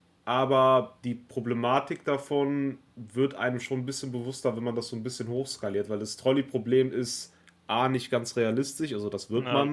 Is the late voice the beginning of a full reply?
No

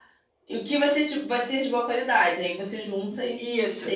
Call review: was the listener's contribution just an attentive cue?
No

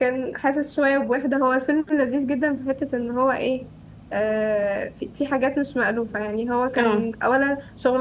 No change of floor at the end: Yes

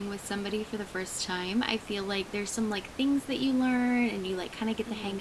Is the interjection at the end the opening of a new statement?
No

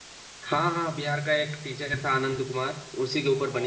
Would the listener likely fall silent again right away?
No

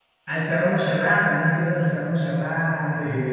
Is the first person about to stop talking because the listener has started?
No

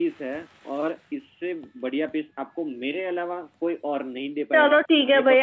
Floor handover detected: Yes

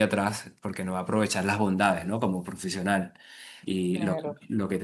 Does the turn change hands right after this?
Yes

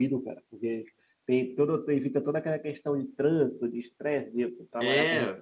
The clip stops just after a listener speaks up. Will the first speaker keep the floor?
No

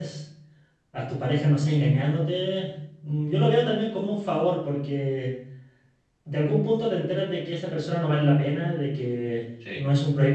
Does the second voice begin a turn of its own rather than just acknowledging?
No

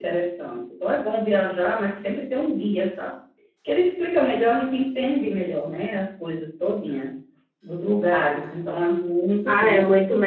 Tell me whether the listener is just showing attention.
No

